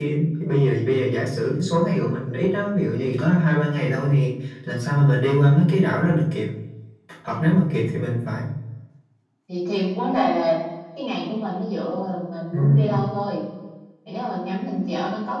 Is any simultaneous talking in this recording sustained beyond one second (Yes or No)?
No